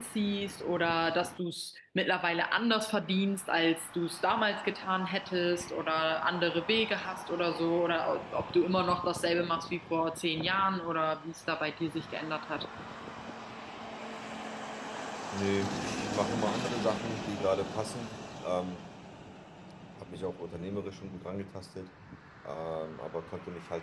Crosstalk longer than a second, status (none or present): none